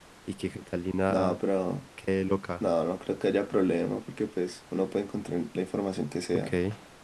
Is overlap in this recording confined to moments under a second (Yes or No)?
Yes